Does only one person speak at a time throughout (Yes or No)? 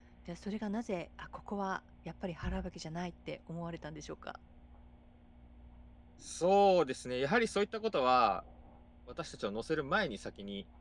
Yes